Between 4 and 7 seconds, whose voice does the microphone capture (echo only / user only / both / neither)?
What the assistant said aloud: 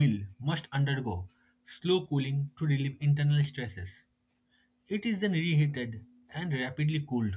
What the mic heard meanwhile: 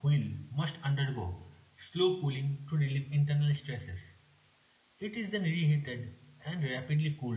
echo only